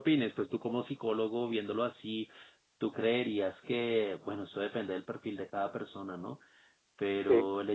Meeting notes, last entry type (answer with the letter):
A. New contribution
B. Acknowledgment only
B